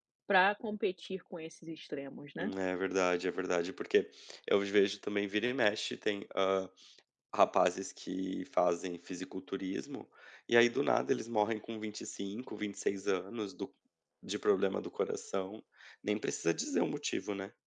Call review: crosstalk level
none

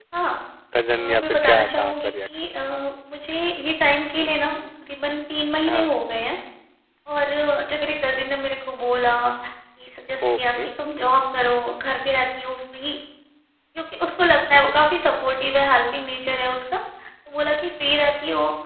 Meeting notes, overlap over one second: present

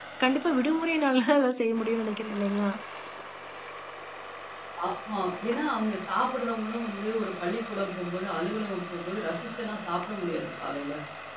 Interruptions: none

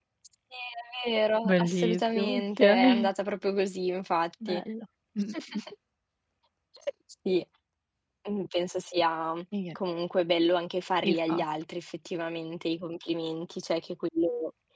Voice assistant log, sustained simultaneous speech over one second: present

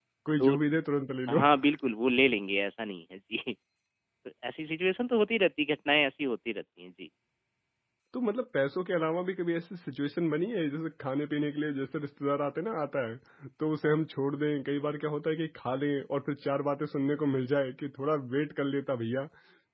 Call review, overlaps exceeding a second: none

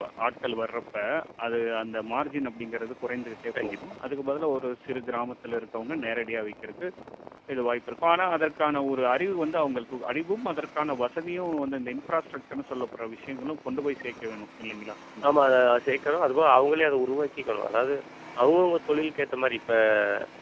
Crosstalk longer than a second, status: none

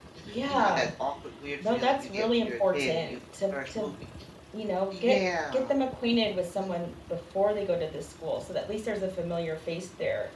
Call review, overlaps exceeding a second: present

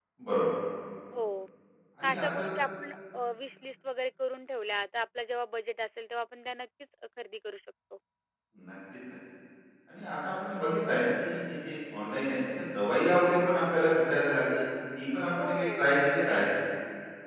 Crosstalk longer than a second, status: none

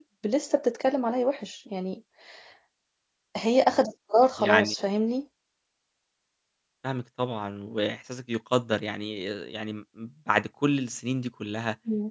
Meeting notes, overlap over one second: none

